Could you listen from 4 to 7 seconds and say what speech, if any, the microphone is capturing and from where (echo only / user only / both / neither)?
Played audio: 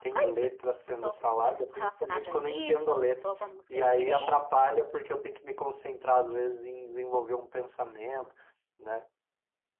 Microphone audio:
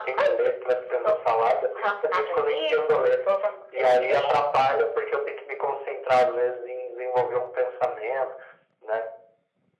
echo only